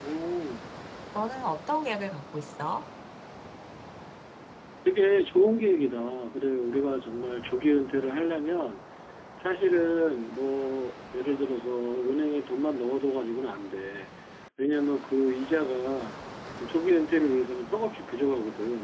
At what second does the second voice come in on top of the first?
none

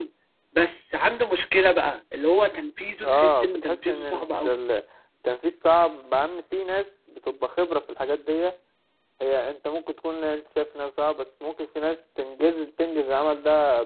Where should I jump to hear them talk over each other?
3.0 s

